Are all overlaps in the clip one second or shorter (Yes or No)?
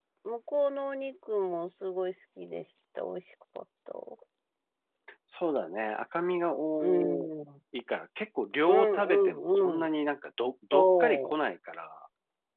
No